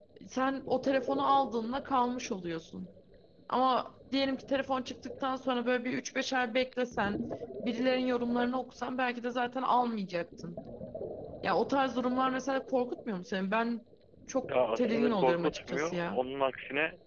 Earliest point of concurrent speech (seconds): 14.8 s

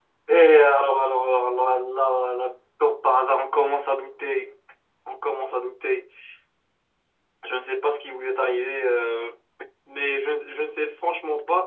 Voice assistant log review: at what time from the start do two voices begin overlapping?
none

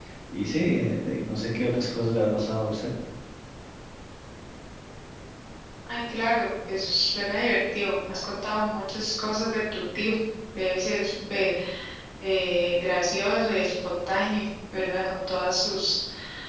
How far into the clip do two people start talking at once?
none

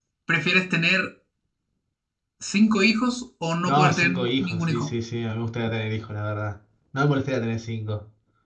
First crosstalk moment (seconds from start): 3.7 s

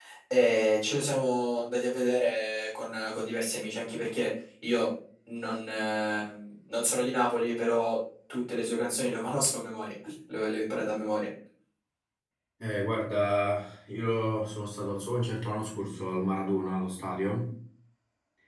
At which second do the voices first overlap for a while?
none

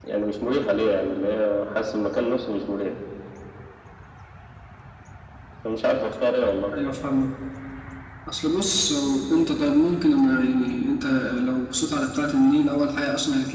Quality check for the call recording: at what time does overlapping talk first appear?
none

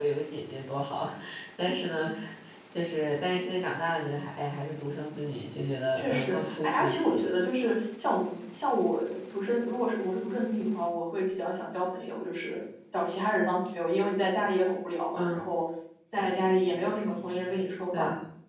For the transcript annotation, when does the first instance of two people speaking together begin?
6.0 s

